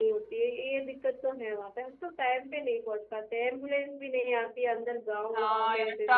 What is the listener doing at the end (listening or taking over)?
taking over